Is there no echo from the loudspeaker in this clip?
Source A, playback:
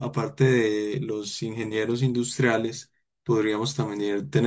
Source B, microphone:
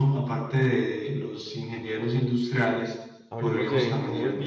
No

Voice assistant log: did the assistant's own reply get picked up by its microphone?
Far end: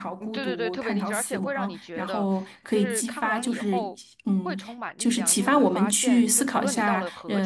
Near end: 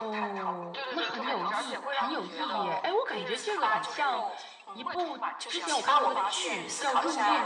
Yes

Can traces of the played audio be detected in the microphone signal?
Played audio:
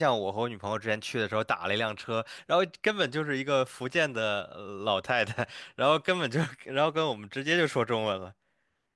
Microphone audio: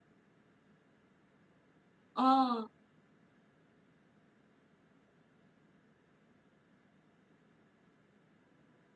No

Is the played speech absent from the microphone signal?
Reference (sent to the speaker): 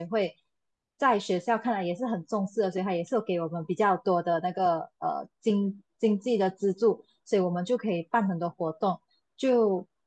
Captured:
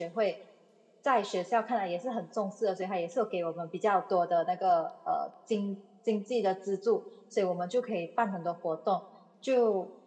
No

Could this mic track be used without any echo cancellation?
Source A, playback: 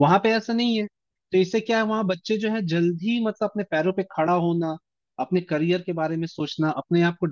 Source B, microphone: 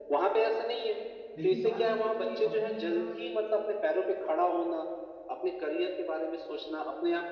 No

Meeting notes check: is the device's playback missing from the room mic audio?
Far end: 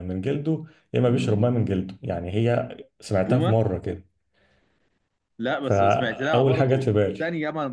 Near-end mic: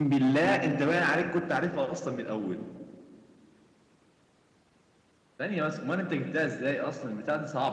Yes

